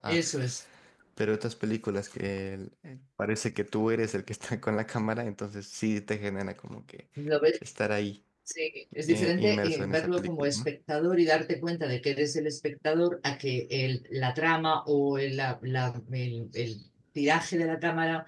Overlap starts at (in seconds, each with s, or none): 9.1 s